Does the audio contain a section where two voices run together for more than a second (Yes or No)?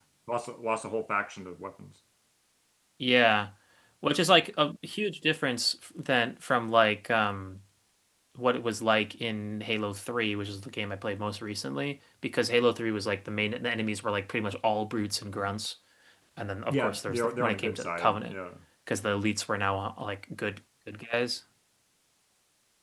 Yes